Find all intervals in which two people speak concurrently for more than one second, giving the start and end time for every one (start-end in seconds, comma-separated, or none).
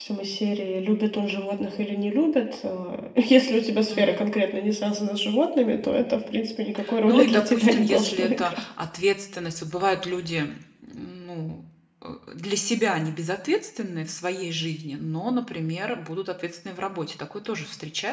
7.1-8.6